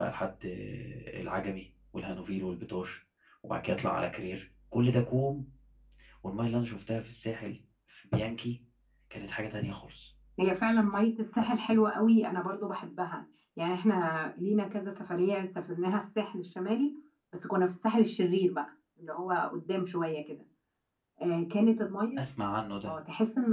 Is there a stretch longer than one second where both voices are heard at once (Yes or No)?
No